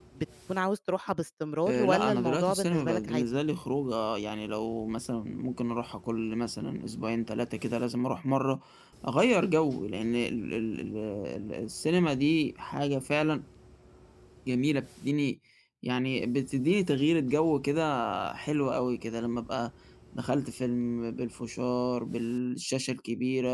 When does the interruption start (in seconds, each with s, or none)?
1.7 s